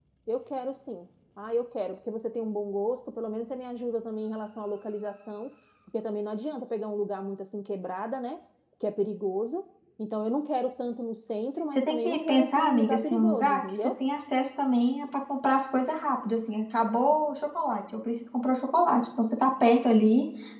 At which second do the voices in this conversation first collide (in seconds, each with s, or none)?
11.8 s